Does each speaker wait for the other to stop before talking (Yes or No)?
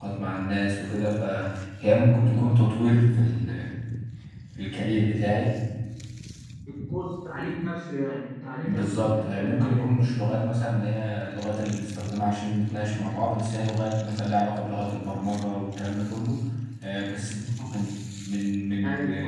No